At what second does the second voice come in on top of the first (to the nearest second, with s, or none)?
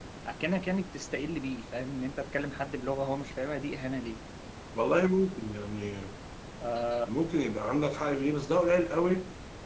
none